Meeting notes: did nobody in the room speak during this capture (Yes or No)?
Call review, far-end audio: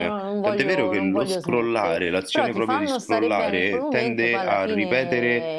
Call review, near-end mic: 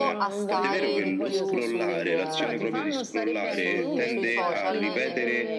No